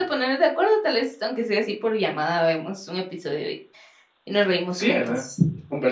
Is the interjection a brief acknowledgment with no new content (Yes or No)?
No